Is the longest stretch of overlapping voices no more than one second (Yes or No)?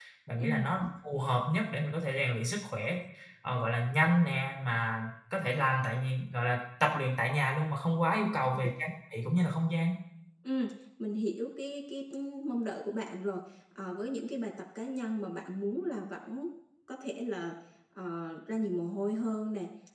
Yes